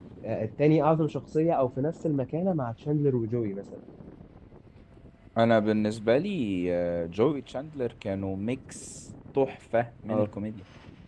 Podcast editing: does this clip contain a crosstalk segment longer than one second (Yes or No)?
No